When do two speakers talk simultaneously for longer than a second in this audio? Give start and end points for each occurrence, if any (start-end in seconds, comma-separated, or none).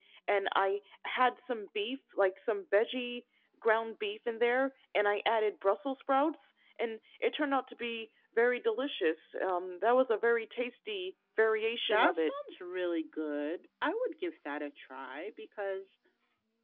none